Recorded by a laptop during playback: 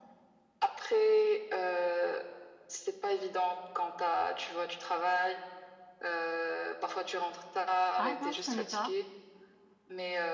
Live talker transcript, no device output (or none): Ah non, je connais pas.